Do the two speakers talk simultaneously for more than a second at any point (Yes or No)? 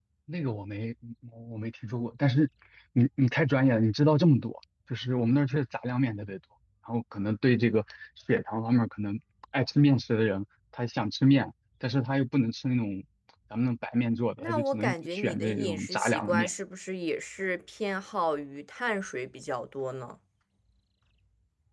Yes